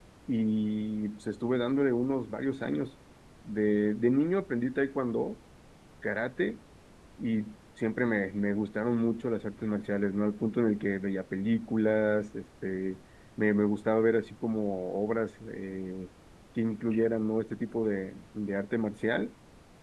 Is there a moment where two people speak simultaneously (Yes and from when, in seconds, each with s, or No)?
No